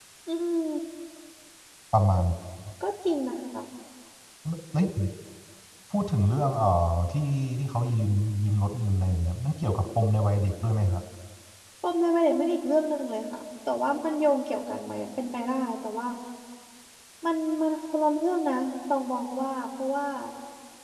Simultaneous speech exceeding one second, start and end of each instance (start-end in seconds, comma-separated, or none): none